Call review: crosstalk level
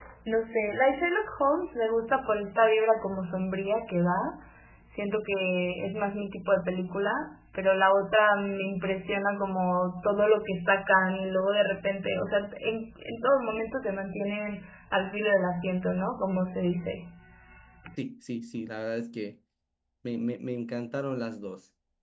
none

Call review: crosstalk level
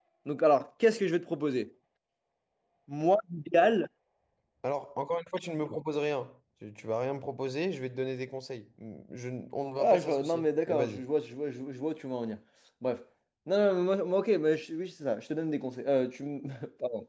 present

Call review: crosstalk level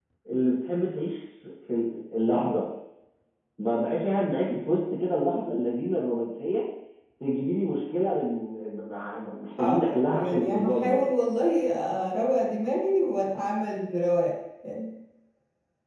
present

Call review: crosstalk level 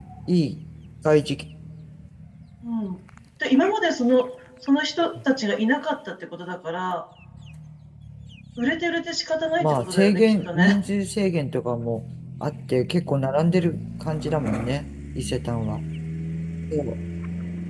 present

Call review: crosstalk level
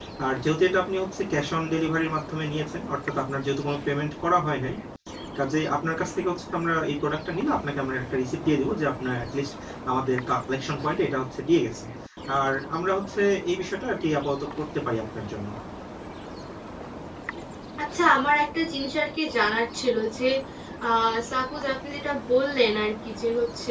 none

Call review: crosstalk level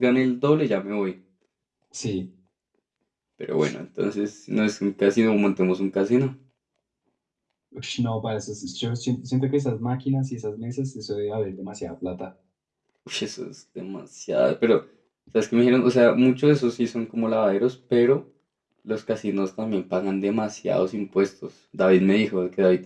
none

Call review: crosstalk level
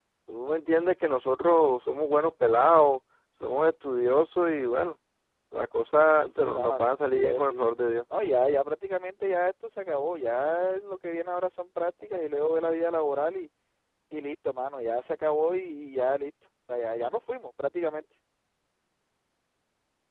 present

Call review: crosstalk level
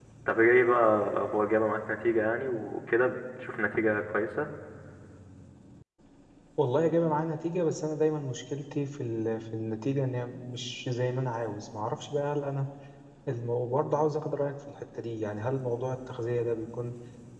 none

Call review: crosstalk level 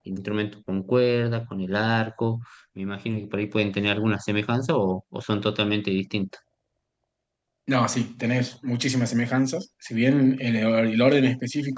none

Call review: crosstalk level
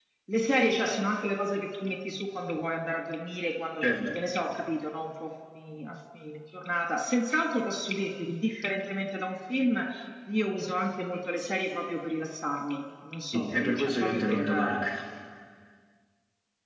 present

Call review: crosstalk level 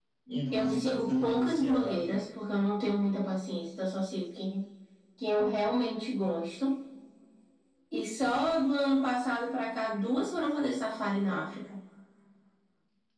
present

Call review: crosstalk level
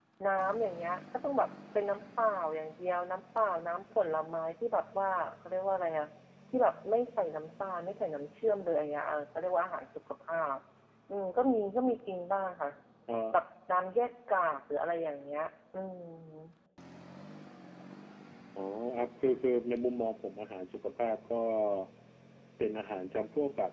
none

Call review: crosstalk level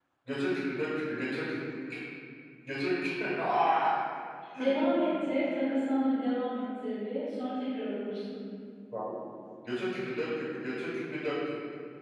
none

